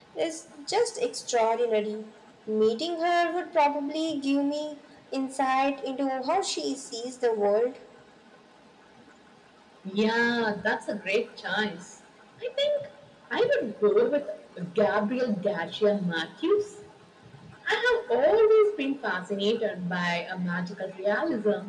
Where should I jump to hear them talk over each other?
none

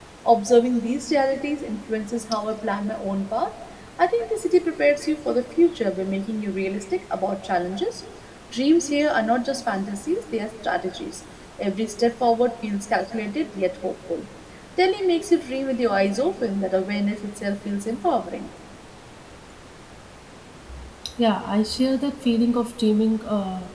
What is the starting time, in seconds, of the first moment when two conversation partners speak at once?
none

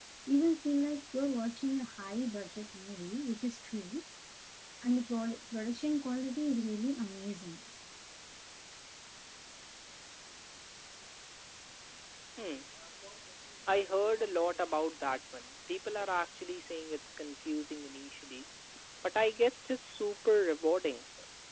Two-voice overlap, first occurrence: none

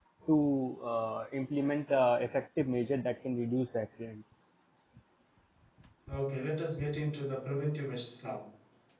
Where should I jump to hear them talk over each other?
none

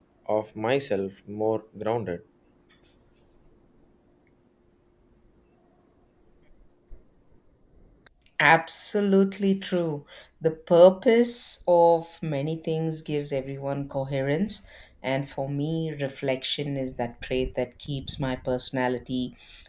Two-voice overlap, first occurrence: none

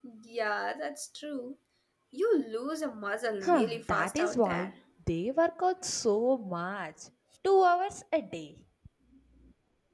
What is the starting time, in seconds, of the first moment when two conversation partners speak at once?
3.4 s

